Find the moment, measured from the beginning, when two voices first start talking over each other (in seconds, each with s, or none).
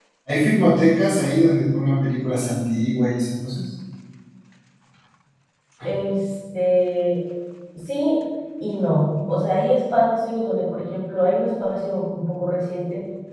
none